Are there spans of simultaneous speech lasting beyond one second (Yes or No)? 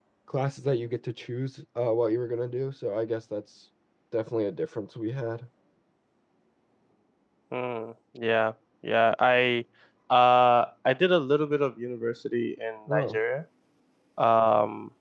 No